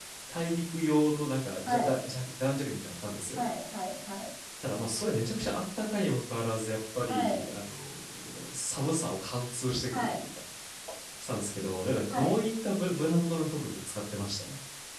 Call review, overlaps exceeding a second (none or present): none